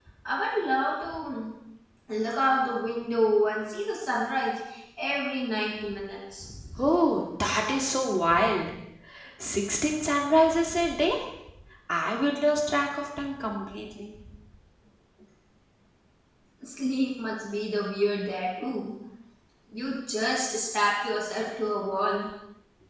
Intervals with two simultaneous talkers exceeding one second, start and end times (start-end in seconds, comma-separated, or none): none